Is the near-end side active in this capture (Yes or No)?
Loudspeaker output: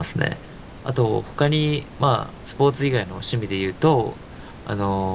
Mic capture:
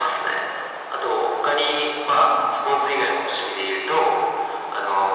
No